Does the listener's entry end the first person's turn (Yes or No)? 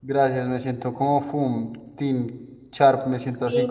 Yes